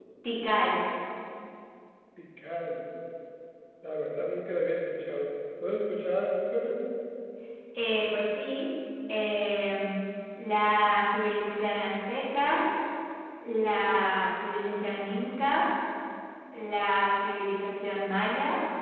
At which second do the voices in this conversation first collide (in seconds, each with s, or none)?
none